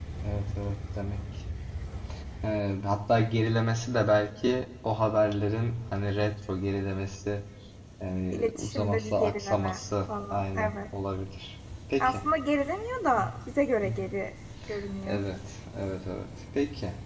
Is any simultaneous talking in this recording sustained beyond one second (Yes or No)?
Yes